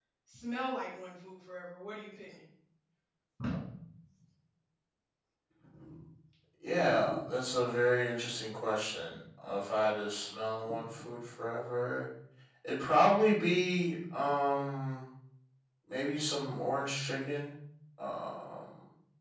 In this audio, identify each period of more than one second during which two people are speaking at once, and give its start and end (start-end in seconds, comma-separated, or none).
none